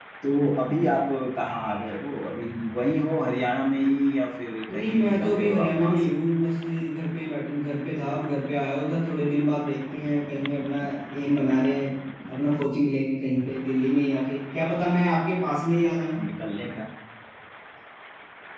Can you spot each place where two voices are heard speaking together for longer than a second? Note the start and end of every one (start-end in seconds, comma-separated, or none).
4.7-6.2